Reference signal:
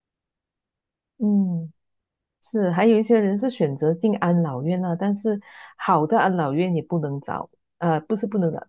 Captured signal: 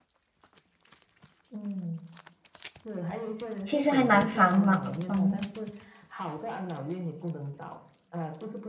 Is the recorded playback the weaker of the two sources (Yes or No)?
Yes